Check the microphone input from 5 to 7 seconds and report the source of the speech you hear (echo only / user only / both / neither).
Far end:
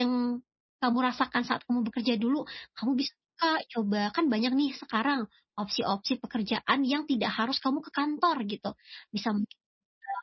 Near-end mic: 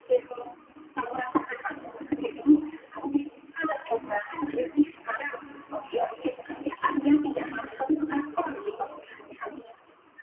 echo only